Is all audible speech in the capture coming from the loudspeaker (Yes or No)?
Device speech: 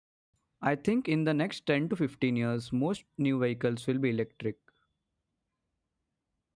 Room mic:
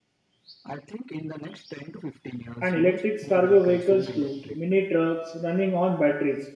No